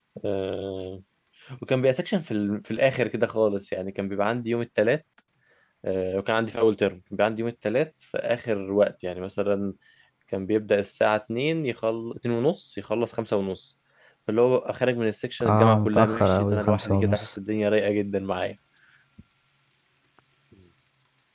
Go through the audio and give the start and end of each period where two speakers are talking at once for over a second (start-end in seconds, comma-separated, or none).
15.5-17.3